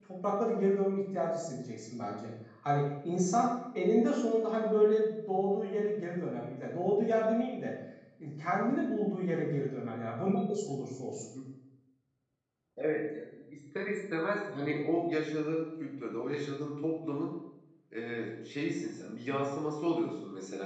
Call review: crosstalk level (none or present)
none